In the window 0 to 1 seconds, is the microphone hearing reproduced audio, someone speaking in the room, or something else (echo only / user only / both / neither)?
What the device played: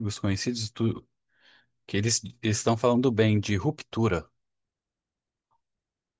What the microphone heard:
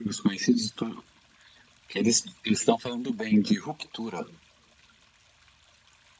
echo only